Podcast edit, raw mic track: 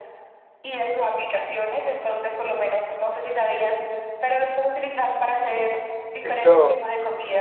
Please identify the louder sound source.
user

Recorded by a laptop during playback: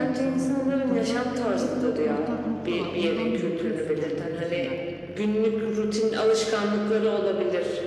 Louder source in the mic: echo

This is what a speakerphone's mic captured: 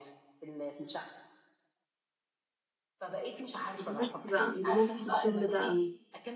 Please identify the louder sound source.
user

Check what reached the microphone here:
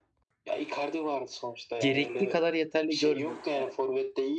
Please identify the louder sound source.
user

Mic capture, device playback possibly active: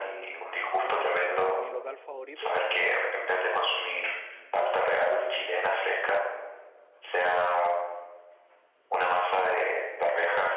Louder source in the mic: echo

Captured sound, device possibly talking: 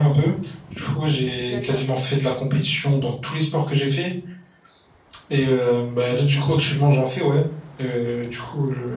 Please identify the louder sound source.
echo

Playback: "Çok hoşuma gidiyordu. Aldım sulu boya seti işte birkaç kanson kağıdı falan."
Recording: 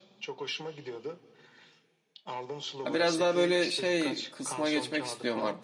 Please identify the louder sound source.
user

